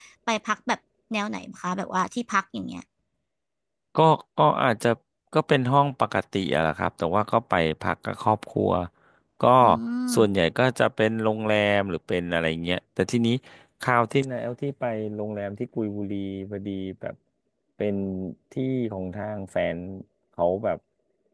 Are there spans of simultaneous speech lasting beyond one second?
No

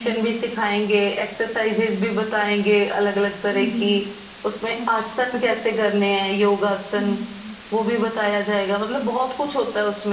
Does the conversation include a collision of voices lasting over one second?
No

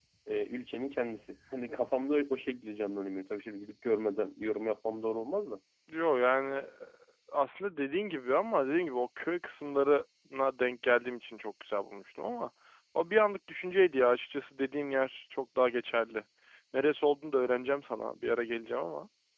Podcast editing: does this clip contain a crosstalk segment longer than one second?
No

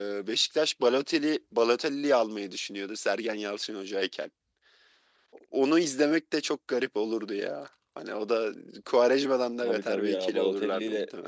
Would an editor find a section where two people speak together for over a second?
Yes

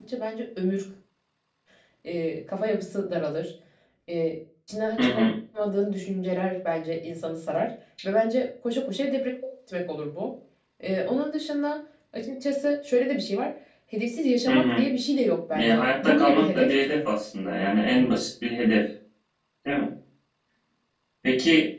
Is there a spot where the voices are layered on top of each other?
Yes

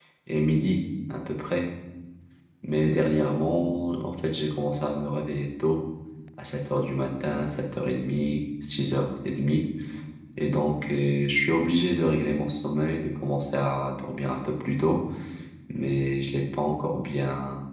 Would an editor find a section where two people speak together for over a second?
No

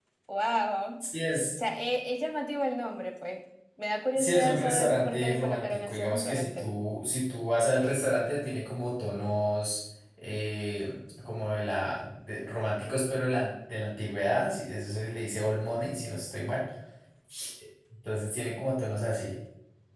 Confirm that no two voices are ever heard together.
No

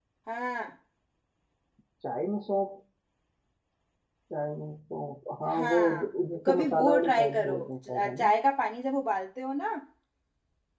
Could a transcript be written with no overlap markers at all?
No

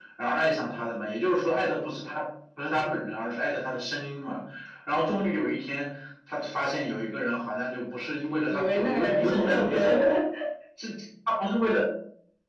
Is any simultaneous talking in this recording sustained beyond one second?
Yes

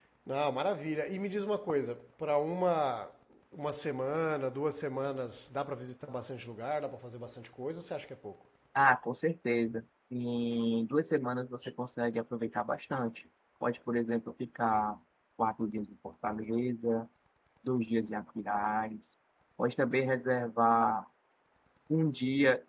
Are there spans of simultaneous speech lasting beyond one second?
No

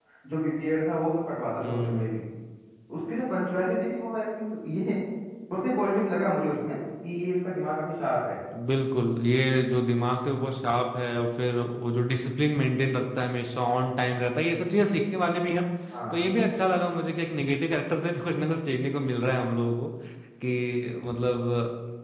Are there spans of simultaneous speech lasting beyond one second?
No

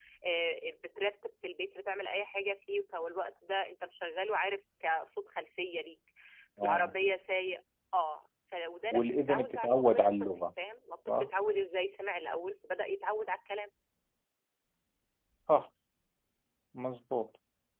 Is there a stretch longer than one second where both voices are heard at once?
Yes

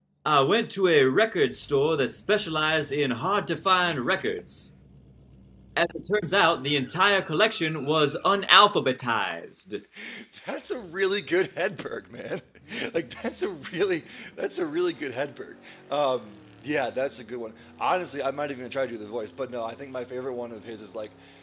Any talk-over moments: No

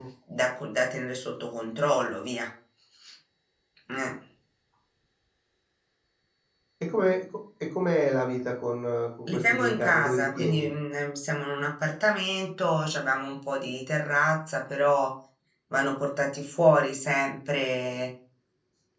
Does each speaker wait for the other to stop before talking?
No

